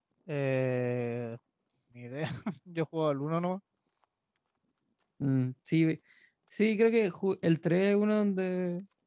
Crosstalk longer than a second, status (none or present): none